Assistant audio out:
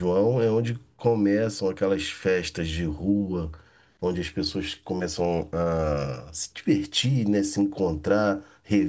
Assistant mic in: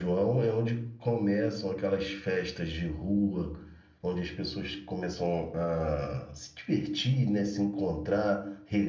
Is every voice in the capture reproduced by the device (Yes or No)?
Yes